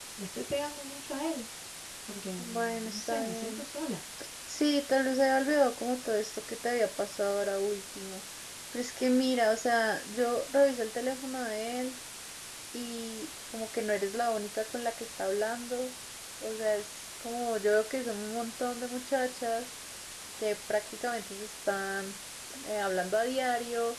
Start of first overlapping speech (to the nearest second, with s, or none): 2 s